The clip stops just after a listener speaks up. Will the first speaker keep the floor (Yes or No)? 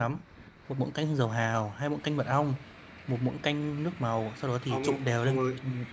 No